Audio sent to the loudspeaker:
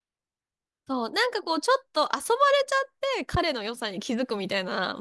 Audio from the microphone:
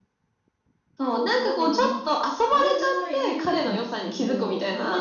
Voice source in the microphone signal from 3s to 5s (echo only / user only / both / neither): both